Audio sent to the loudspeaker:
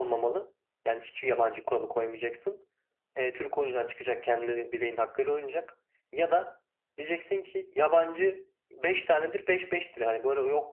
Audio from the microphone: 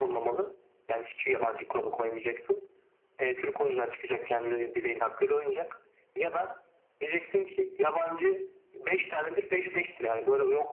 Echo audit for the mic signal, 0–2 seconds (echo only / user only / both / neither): echo only